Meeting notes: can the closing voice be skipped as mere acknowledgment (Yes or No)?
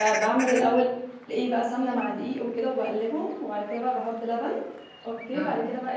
Yes